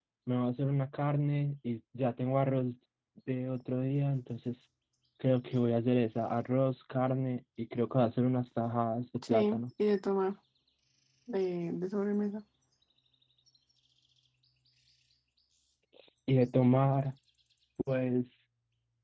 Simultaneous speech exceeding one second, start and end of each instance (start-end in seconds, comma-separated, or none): none